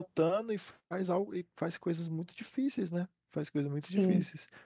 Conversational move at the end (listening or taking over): listening